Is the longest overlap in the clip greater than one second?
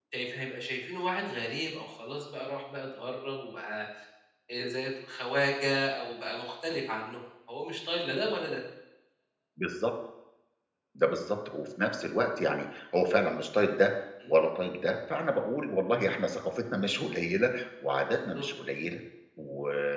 No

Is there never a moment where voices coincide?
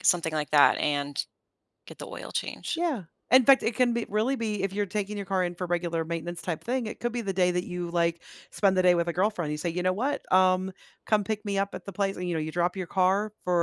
Yes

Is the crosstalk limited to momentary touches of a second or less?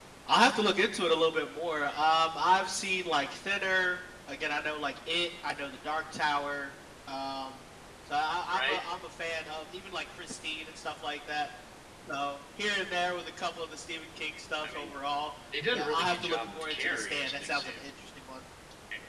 No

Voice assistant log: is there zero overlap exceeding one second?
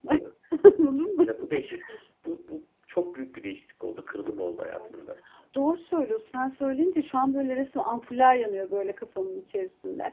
Yes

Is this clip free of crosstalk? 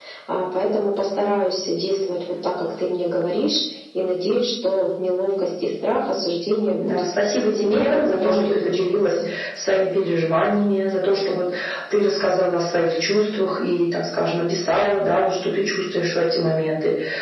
No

